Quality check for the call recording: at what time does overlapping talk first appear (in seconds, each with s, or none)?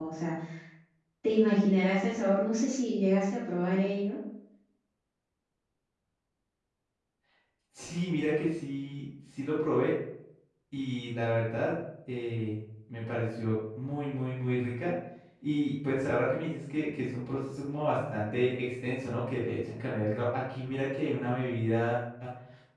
none